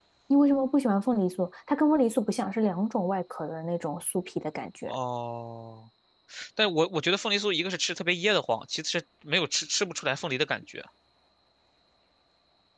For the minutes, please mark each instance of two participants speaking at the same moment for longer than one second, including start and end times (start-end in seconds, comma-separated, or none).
none